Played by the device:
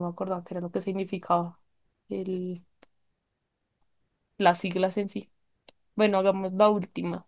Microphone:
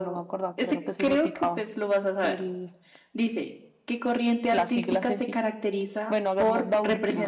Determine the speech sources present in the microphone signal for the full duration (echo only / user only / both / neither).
both